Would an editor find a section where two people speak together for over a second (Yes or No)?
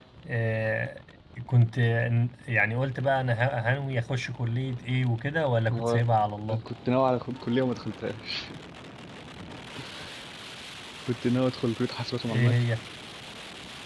No